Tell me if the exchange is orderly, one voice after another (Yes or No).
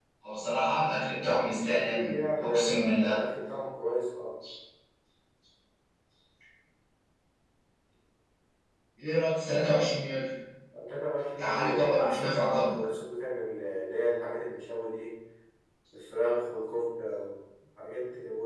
No